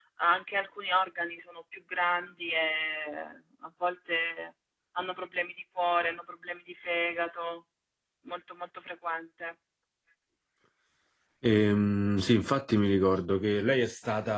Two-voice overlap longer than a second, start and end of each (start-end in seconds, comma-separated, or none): none